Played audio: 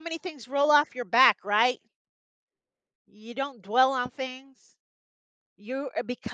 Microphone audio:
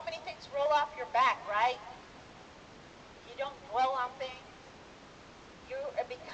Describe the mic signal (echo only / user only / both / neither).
echo only